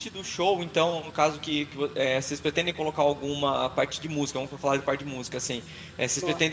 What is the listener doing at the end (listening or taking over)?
listening